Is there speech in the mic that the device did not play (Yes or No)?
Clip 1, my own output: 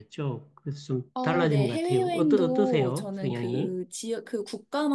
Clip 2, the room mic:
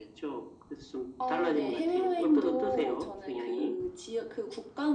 No